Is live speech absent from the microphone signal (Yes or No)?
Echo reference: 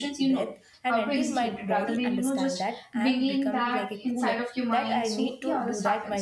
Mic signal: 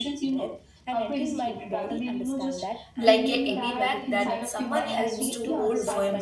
No